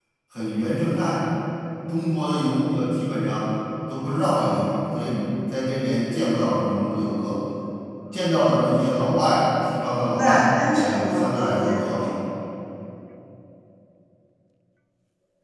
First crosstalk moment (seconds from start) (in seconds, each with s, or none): 10.1 s